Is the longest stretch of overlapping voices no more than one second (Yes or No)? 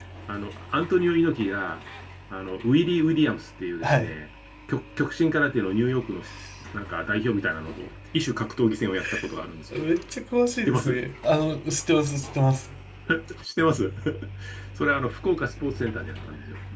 Yes